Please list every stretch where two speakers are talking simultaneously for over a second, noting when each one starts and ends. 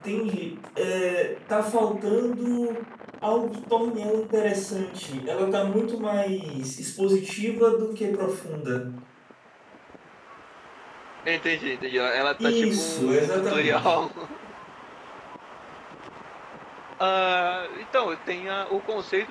12.4-13.9

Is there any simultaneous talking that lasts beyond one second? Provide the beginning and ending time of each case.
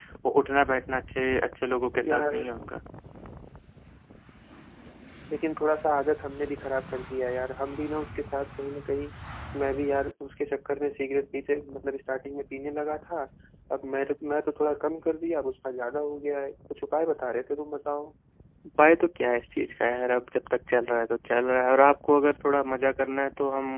none

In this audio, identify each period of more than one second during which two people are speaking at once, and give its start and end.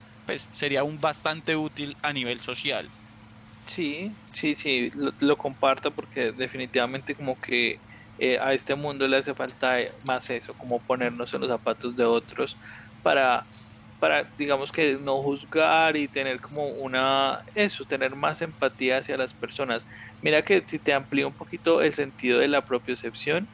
none

